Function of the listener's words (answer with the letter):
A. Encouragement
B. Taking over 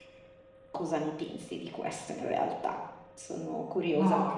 B